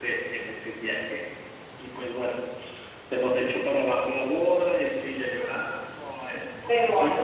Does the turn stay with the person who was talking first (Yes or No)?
No